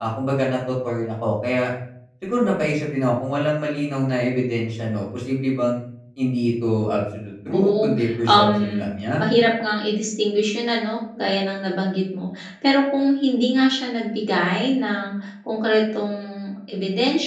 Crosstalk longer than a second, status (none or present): present